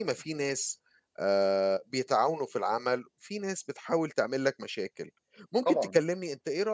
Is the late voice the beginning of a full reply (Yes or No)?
No